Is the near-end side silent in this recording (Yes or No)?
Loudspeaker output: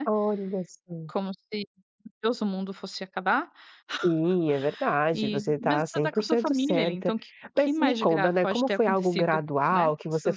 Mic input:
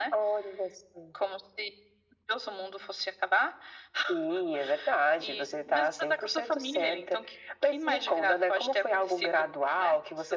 Yes